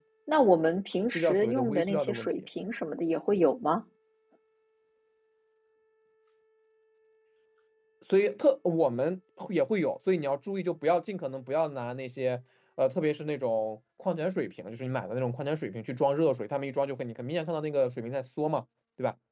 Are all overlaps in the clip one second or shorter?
No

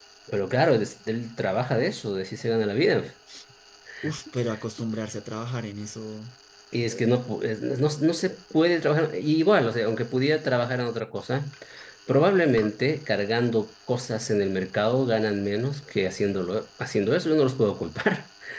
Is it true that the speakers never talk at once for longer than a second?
Yes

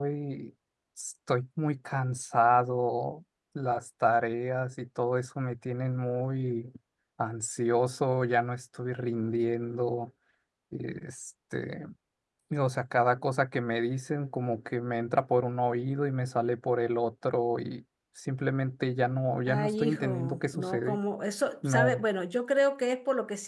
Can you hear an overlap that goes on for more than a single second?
Yes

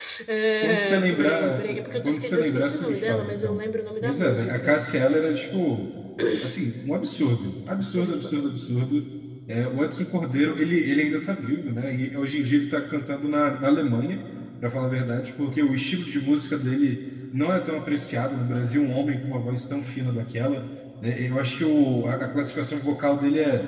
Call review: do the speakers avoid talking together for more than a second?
No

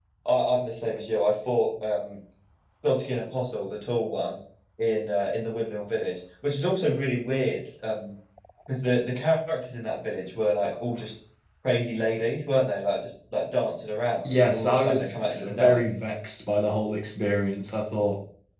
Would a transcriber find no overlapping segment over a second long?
No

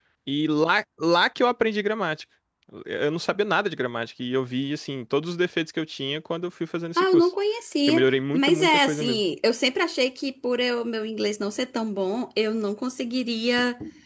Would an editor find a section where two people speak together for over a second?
Yes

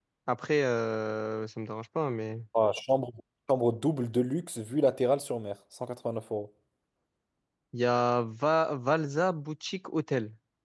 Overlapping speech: No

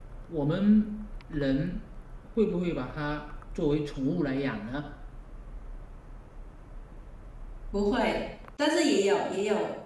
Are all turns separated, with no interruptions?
Yes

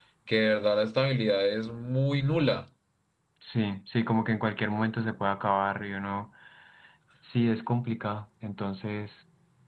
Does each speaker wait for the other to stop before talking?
Yes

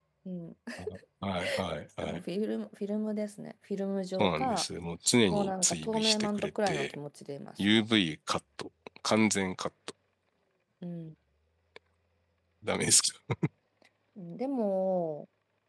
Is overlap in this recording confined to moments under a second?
No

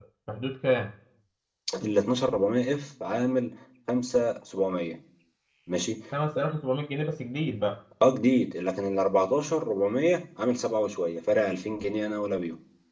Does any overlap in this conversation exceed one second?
No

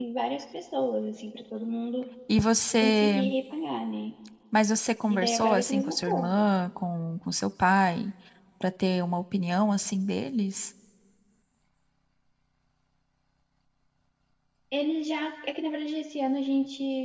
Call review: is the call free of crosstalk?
No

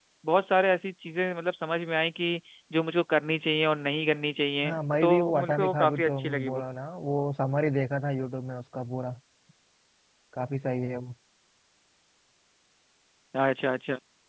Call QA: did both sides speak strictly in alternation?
No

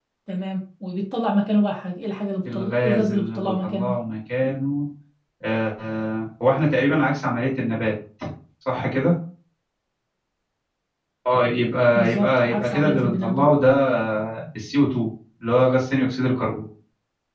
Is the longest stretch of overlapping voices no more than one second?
No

